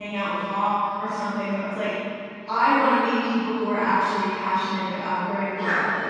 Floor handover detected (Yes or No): Yes